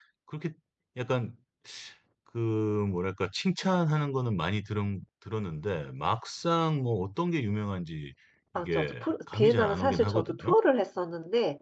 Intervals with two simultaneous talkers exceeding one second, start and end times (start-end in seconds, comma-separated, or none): 8.6-10.5